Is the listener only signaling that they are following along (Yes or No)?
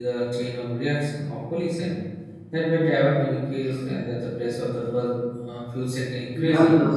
No